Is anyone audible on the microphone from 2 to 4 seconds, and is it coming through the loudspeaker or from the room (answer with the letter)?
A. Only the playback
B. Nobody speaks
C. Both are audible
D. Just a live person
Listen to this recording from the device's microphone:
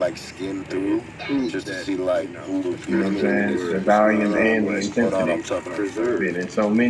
C